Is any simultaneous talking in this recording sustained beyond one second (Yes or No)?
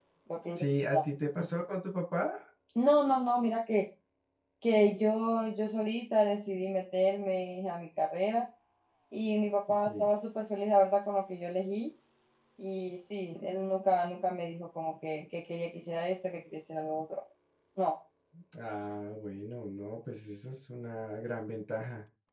No